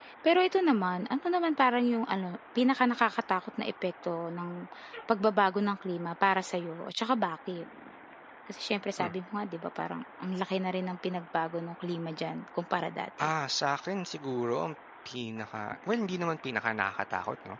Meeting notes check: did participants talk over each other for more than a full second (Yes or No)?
No